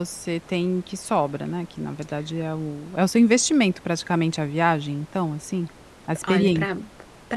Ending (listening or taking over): taking over